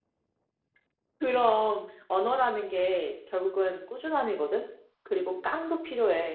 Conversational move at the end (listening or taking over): listening